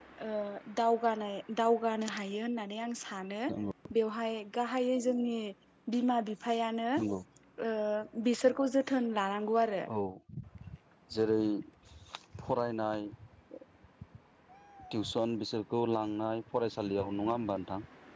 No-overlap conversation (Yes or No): Yes